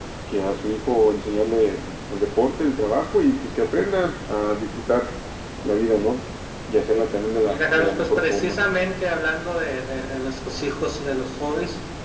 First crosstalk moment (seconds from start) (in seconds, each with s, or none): 7.4 s